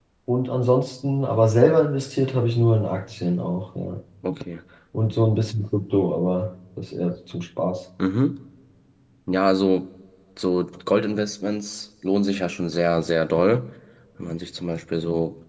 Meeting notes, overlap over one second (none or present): none